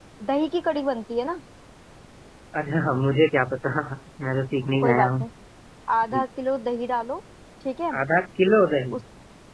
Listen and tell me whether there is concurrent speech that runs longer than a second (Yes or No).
No